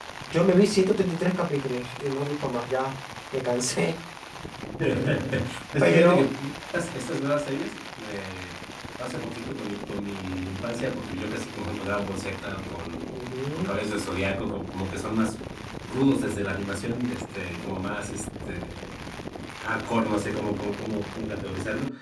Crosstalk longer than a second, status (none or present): none